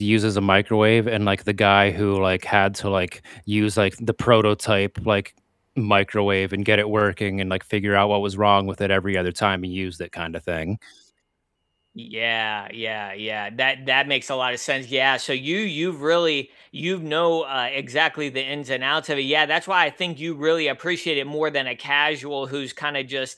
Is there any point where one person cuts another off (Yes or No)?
No